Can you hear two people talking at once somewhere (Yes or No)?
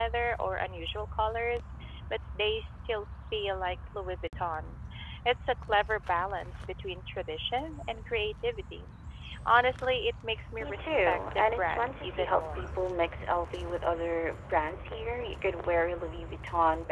Yes